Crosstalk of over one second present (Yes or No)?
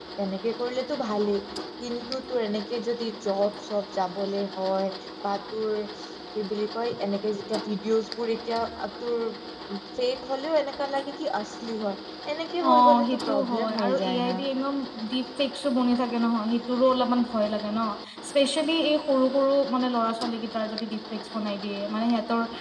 Yes